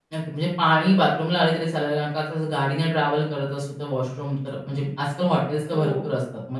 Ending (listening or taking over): listening